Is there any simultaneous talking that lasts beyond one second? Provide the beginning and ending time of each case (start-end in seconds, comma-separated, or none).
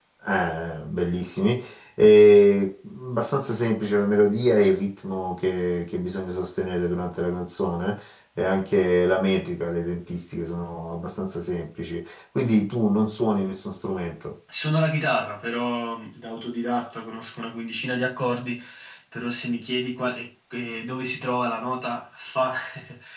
none